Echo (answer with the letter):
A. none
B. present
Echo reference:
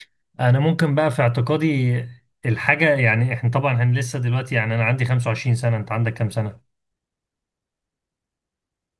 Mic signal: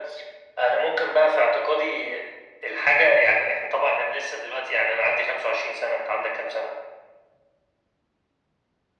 B